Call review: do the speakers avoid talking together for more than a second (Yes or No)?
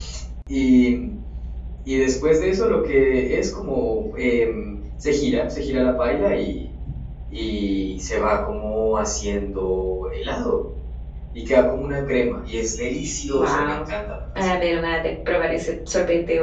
Yes